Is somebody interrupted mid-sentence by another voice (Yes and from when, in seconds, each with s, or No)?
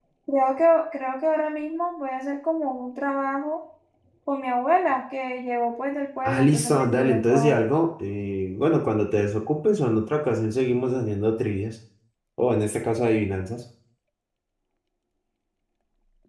Yes, from 6.2 s